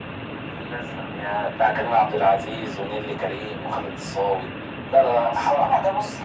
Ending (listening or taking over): taking over